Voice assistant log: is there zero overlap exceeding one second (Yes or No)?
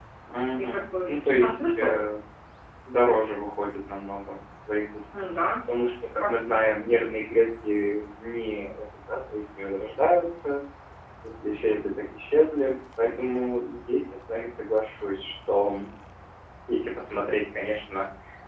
No